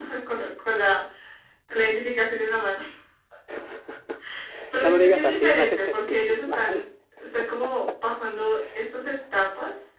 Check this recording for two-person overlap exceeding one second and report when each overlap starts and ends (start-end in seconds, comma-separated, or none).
4.8-6.8